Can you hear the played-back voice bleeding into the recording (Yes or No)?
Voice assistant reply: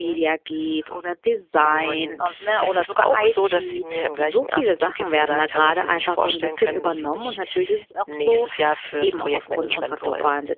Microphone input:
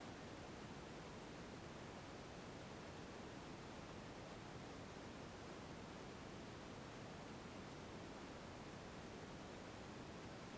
No